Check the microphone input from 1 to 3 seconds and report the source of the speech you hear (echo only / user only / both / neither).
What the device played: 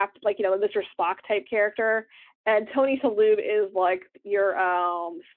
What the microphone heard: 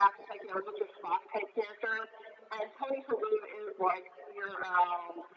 echo only